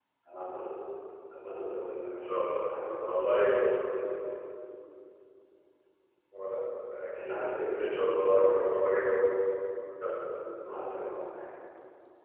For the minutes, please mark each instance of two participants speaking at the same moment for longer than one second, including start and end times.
2.2-3.8, 7.2-8.8

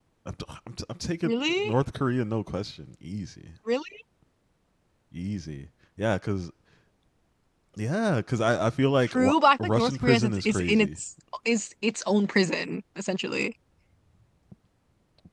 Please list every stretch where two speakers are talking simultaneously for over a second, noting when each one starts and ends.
9.1-11.0

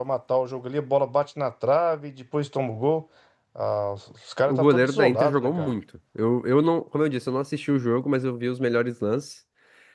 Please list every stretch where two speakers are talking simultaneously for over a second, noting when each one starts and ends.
4.5-5.7

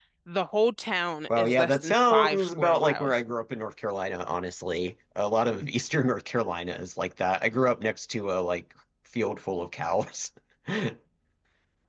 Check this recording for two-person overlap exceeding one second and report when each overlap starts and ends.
1.4-3.1

